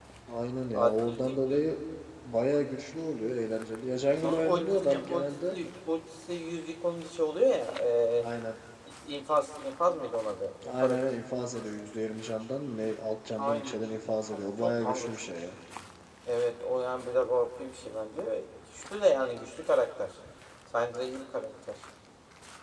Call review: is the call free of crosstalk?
No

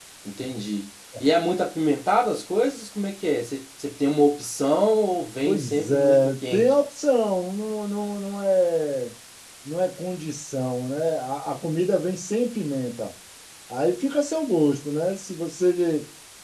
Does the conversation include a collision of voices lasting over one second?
Yes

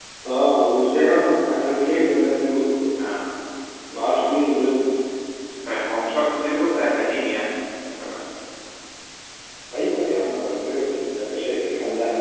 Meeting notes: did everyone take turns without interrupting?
Yes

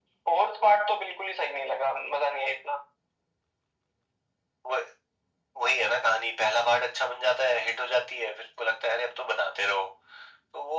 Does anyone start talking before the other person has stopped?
No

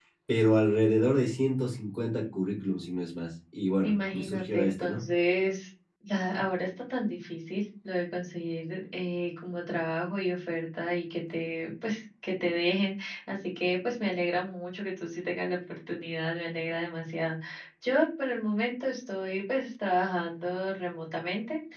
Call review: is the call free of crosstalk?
No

